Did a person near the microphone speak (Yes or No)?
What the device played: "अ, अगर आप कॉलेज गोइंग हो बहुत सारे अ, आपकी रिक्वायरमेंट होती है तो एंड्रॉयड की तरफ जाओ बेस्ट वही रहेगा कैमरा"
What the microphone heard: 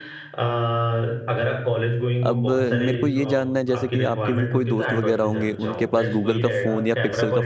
Yes